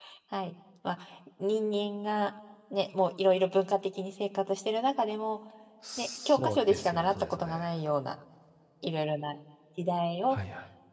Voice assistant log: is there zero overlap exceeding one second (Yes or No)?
No